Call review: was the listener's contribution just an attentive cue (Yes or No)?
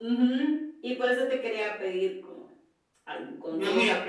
No